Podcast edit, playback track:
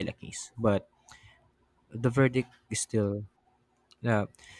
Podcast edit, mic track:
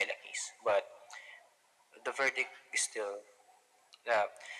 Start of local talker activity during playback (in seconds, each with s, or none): none